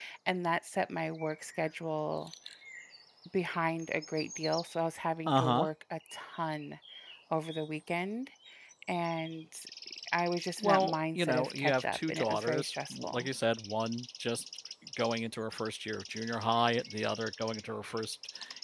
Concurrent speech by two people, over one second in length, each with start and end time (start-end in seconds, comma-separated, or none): 10.6-13.3